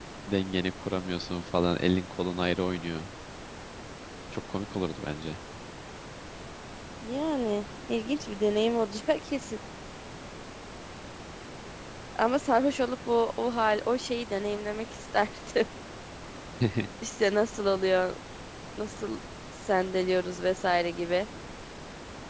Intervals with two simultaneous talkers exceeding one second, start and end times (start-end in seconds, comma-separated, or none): none